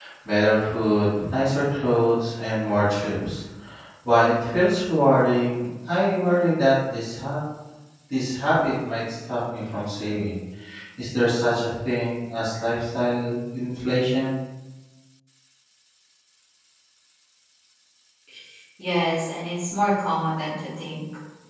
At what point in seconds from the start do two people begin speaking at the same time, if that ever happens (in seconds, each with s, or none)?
none